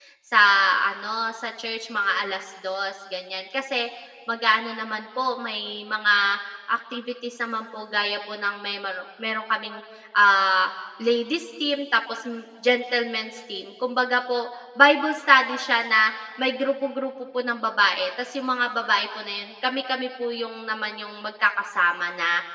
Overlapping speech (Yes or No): No